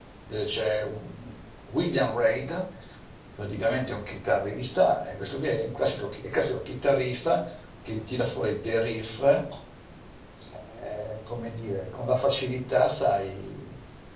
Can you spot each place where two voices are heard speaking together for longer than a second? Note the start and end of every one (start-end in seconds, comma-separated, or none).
none